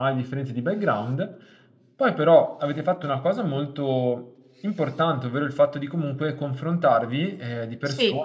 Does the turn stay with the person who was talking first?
Yes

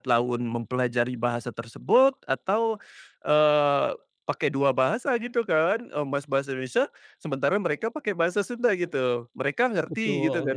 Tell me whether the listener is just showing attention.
No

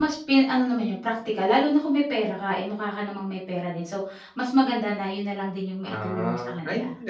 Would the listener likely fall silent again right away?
No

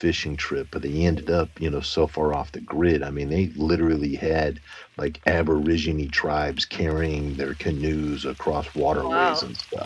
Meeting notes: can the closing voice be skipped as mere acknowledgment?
Yes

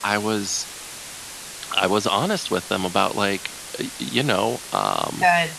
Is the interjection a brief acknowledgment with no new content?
Yes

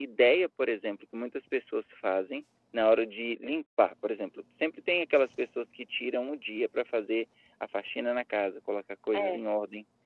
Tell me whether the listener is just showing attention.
Yes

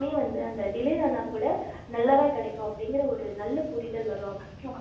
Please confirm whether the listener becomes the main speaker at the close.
Yes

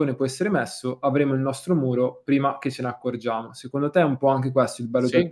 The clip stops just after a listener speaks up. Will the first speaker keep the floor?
No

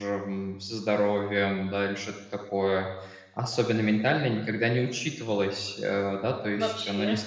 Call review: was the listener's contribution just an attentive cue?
Yes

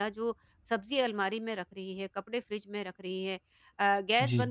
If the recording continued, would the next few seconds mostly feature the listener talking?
No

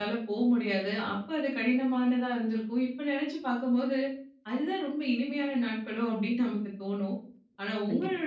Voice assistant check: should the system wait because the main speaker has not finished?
Yes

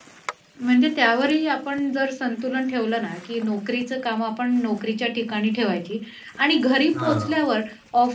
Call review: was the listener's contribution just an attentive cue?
Yes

